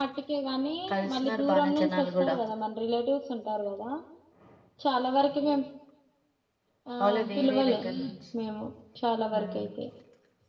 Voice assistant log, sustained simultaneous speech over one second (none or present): present